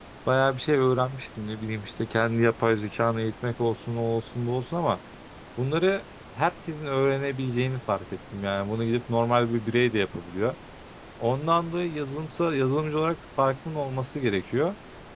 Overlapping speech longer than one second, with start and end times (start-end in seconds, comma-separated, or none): none